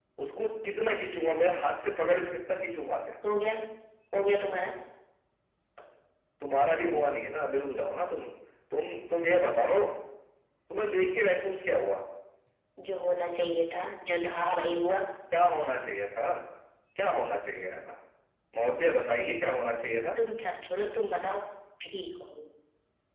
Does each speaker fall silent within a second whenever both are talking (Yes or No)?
Yes